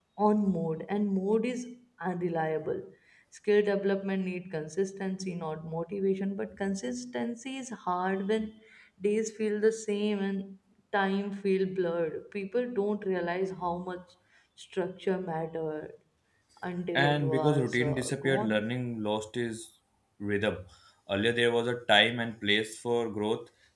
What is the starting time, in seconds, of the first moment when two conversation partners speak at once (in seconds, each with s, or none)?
16.9 s